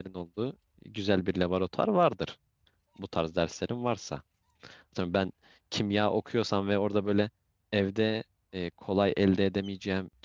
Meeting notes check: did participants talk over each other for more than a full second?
No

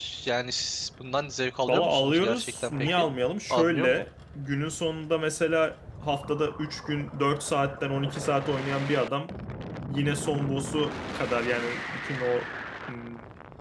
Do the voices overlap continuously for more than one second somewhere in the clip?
Yes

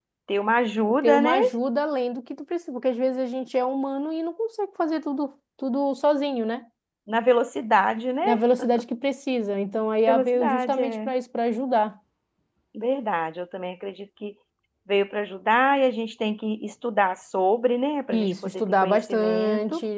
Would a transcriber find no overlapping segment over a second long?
No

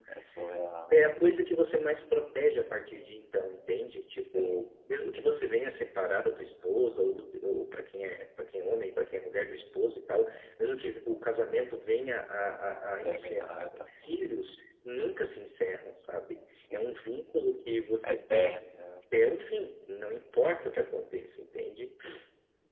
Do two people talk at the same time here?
Yes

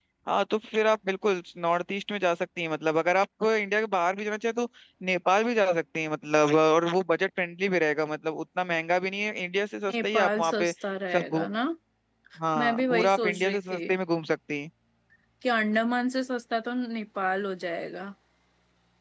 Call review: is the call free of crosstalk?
No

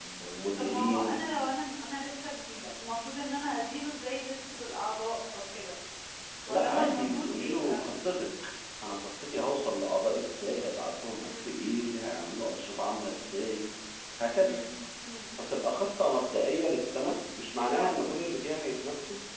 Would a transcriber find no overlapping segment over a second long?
No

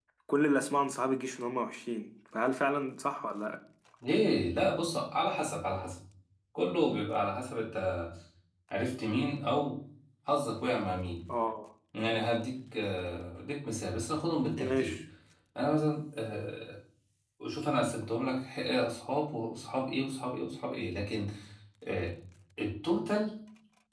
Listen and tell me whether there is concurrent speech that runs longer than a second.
No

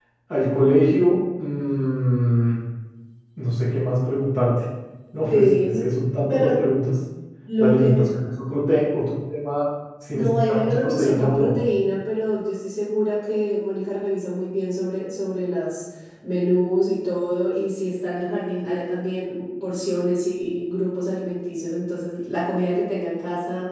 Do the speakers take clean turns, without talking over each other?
No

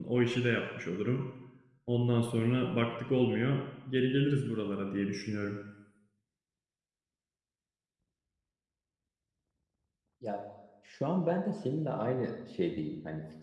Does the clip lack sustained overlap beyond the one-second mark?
Yes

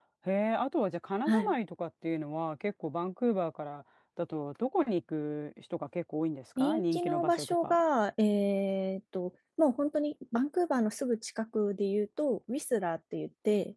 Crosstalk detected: Yes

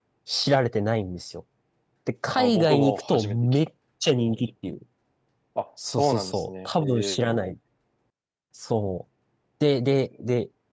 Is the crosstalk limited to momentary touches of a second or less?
No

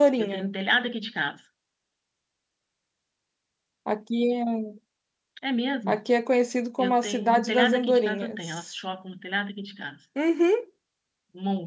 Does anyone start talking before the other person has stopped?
Yes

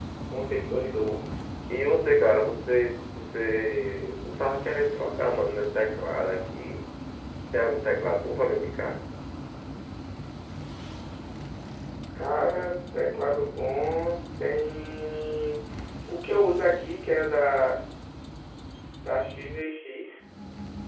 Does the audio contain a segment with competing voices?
No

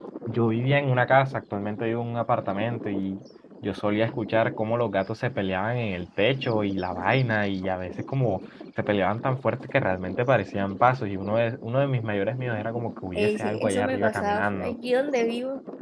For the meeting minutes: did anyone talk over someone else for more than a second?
Yes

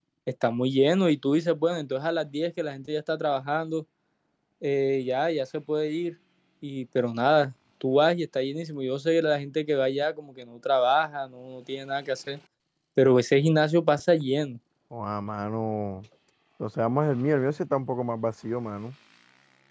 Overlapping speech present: No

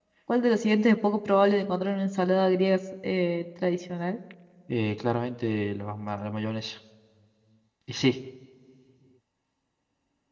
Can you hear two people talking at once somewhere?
No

